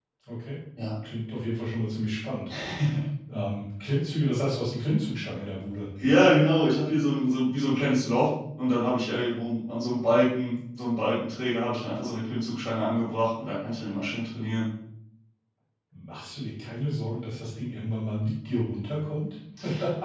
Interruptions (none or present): none